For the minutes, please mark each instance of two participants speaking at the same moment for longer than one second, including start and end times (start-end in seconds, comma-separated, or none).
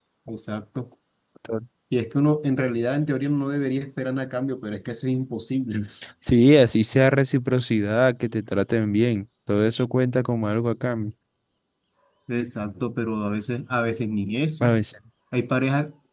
none